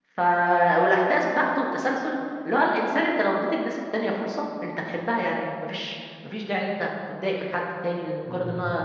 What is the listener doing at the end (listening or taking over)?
listening